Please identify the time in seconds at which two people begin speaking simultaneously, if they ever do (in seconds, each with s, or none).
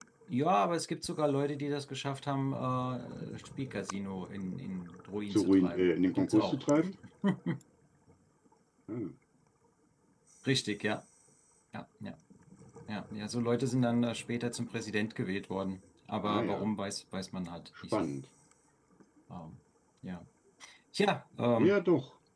5.3 s